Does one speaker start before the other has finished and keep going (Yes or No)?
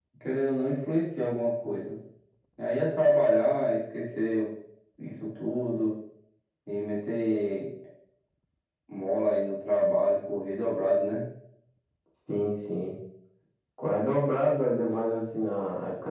No